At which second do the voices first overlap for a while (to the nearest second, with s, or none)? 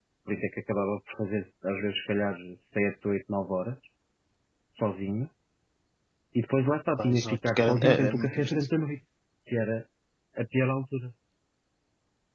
7 s